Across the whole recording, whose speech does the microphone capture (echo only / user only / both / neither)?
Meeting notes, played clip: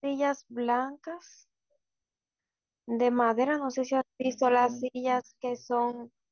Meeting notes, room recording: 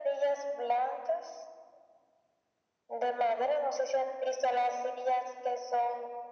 echo only